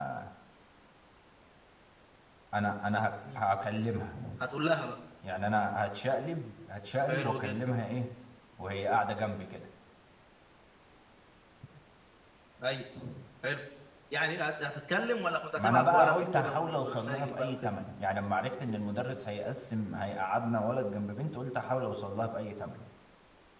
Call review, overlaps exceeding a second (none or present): present